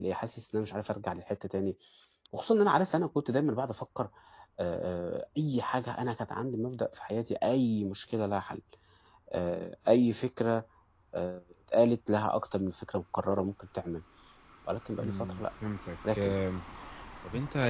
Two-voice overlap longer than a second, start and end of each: none

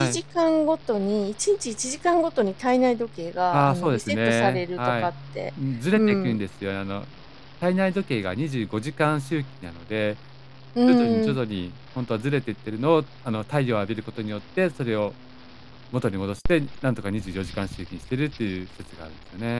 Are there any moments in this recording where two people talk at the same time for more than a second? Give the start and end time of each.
3.5-5.1

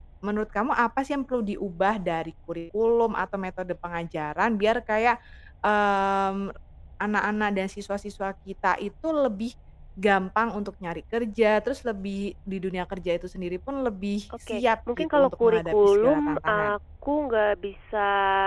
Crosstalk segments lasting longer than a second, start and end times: 14.5-16.7

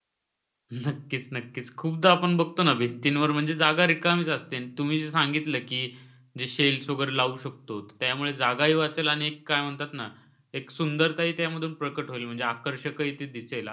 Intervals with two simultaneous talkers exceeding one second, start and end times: none

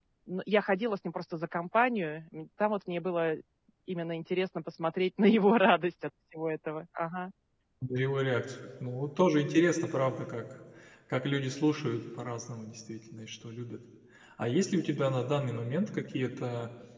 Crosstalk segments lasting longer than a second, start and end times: none

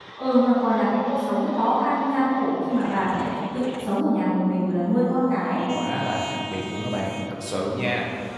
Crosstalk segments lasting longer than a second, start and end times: none

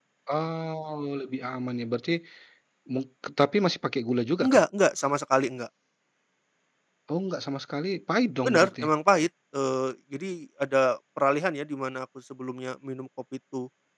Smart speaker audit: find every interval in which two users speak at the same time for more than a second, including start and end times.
none

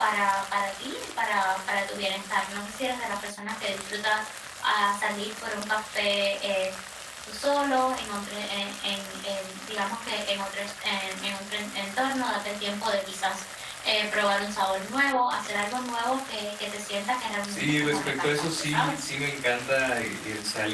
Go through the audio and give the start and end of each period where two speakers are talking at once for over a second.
17.4-19.1

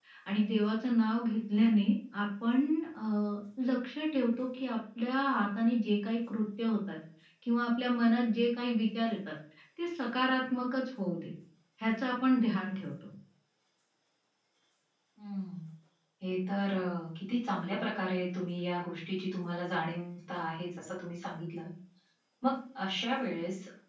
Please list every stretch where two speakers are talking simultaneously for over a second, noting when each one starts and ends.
none

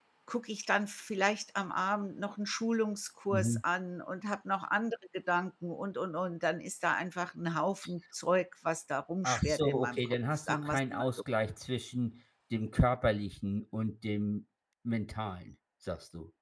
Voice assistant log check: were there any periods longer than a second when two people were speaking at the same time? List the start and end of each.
9.2-11.1

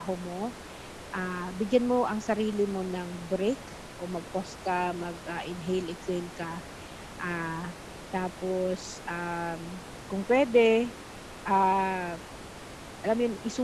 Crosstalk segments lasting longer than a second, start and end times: none

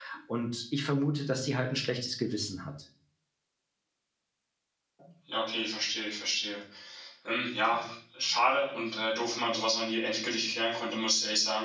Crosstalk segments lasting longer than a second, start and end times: none

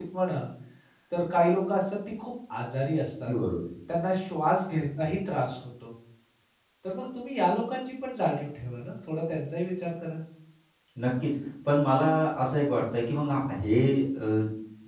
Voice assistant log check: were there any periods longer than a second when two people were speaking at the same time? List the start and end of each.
none

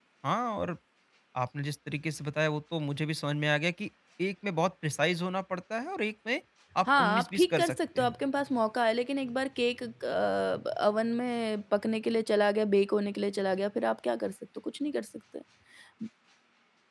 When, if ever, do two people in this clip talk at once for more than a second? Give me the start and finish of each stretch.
6.9-8.1

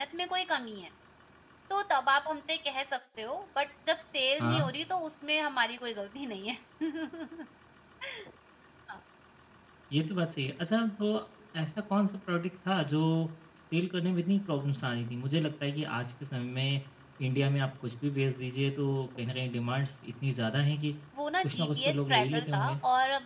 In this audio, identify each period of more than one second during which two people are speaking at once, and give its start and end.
21.4-22.7

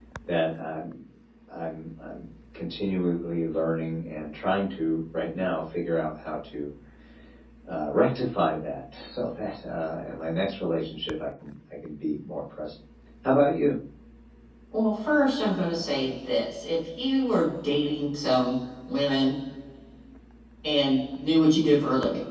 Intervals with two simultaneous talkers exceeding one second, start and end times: none

